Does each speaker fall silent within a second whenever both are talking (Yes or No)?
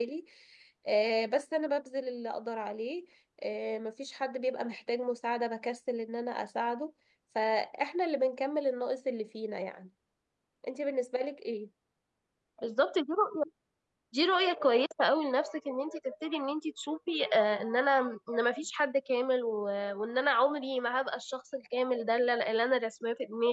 Yes